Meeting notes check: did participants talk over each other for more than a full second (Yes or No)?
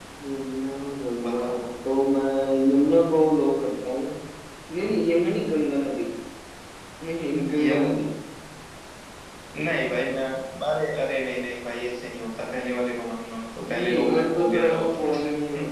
Yes